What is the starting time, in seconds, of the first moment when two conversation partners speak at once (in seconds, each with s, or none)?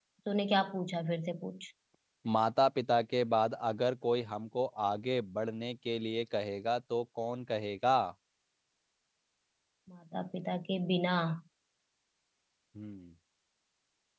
none